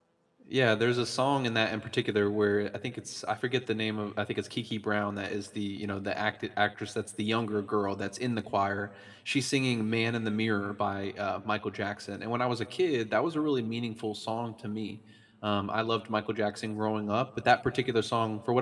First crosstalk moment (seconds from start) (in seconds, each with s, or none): none